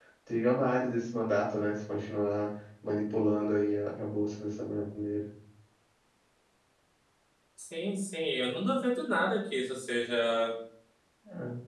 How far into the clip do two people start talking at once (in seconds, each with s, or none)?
none